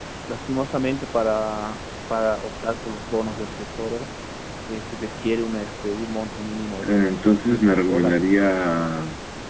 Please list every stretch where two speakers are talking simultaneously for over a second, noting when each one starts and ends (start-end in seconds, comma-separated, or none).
6.8-8.2